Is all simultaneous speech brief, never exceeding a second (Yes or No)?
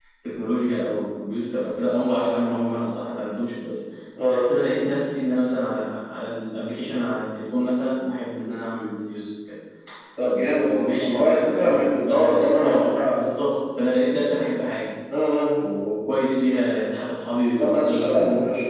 No